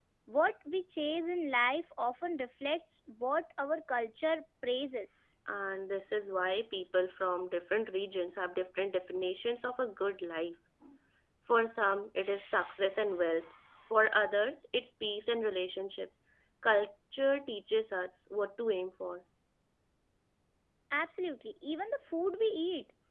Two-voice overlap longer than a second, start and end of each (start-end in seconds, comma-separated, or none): none